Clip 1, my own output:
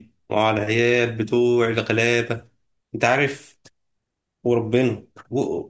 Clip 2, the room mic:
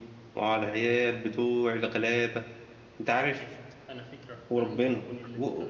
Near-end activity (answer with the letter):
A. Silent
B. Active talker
B